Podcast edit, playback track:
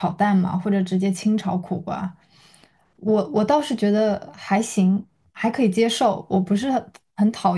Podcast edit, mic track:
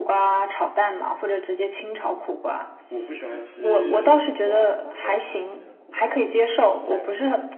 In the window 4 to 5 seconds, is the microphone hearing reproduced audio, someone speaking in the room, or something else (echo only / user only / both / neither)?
both